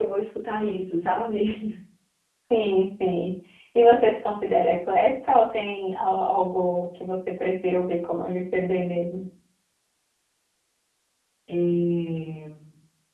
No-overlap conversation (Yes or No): Yes